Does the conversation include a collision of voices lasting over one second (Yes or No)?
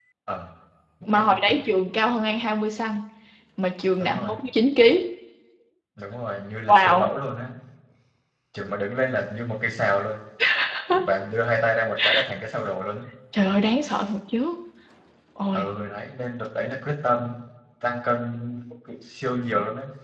No